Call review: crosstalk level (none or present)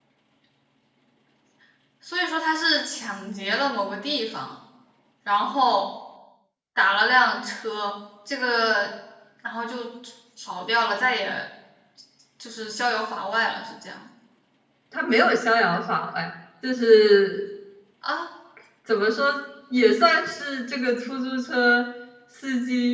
none